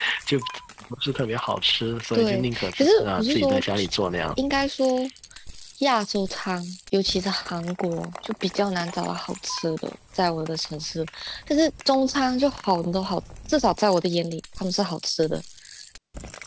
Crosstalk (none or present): present